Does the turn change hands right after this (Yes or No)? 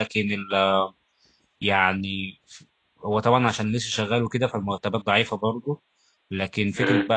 No